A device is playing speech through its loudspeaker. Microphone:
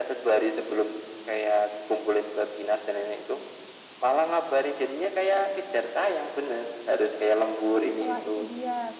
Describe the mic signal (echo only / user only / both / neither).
both